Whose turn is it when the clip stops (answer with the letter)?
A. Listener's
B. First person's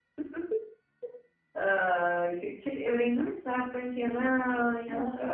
B